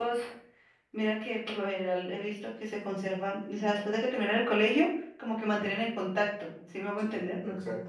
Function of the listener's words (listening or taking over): taking over